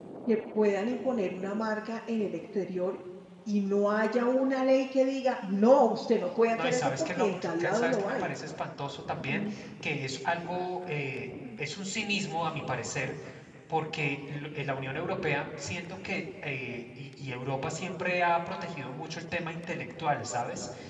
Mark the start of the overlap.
6.6 s

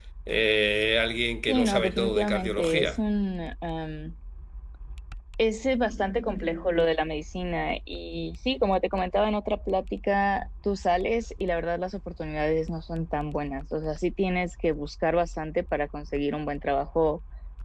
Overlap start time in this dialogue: 1.5 s

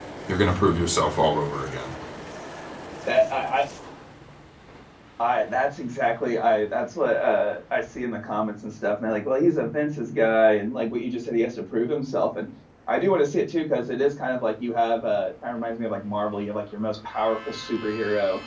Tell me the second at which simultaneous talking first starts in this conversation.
none

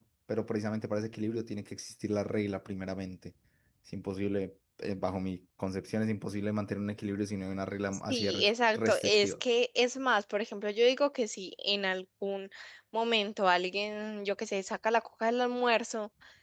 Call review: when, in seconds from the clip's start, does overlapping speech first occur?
8.1 s

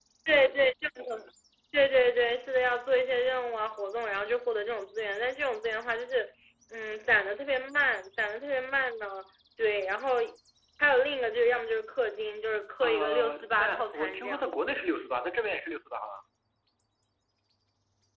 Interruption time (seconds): 12.8 s

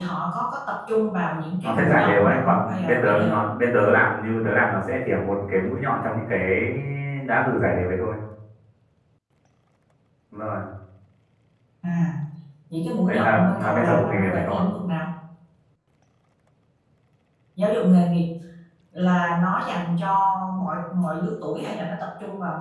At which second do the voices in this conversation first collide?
1.6 s

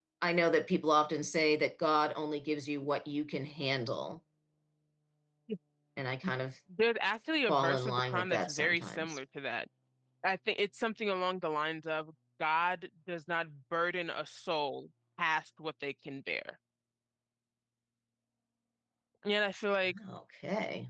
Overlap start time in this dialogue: 7.5 s

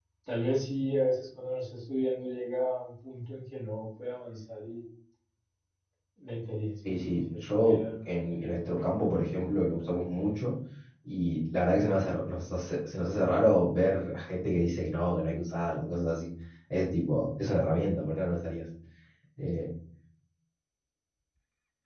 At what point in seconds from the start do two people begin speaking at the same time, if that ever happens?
6.8 s

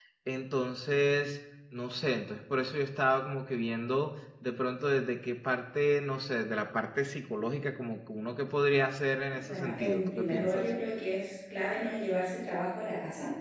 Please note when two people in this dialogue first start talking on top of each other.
9.3 s

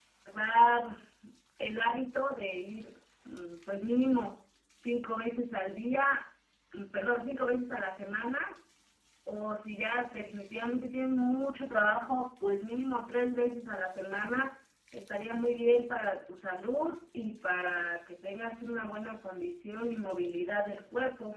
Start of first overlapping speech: none

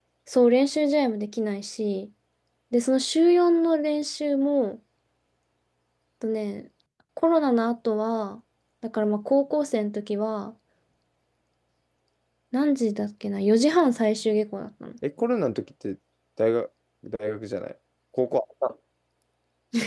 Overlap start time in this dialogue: none

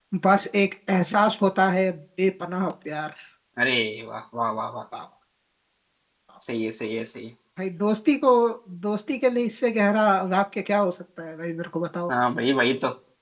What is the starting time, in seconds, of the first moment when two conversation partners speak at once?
none

